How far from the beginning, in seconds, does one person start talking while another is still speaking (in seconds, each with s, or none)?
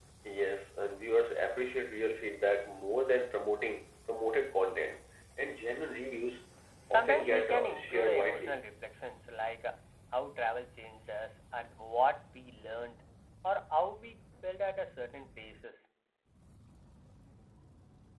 6.9 s